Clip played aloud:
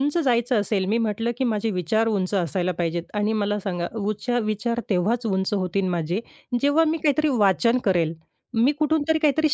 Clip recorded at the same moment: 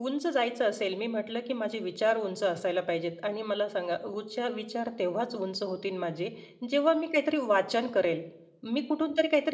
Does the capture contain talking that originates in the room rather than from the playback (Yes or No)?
No